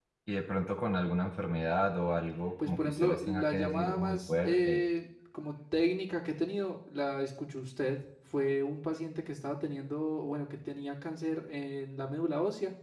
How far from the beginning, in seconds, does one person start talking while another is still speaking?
2.6 s

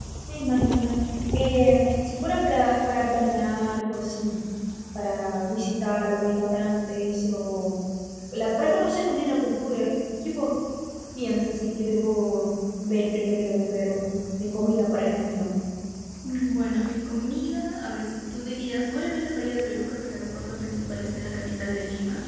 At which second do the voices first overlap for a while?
none

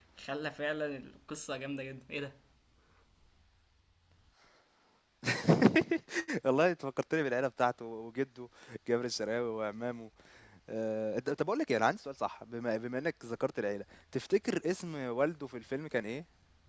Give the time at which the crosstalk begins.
none

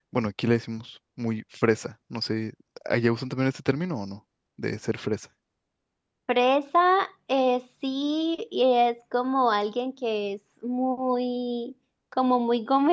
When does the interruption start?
none

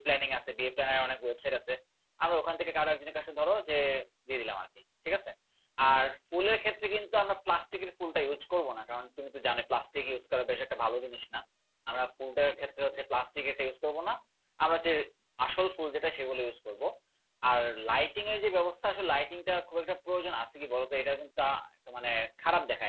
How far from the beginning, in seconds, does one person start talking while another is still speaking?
none

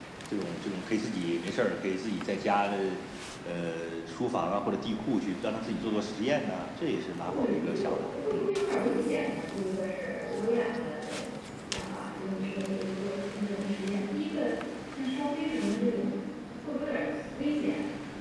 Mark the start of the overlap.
7.3 s

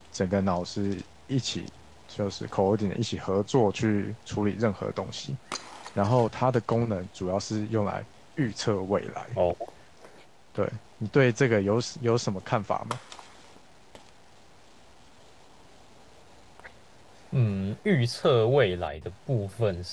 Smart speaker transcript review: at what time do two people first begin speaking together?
none

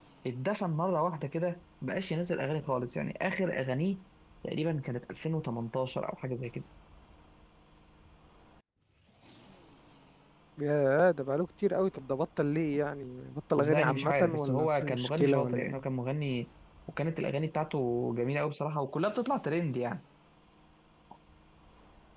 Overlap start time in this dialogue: 13.6 s

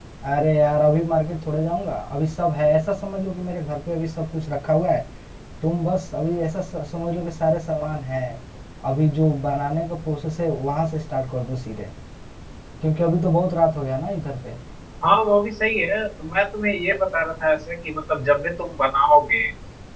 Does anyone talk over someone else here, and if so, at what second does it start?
none

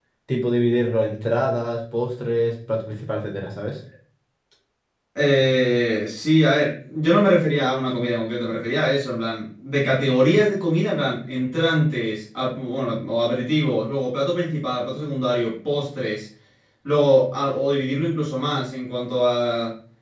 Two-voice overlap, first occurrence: none

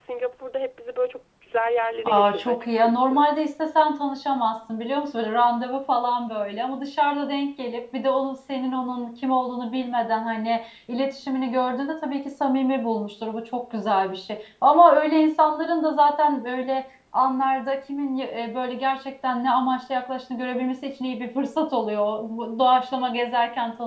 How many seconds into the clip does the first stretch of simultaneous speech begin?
2.0 s

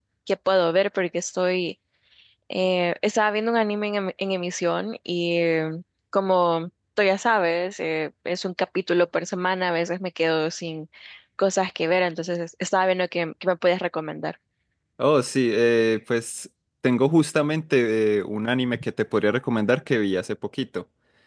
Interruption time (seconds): none

